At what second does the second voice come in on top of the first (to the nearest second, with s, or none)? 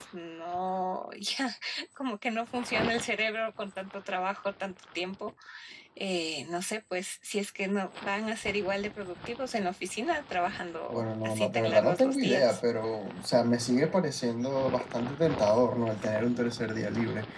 11 s